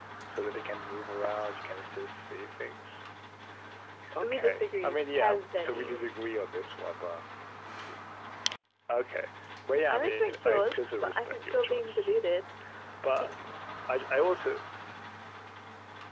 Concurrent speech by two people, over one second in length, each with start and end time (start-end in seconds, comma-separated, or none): 4.2-6.0, 9.9-12.1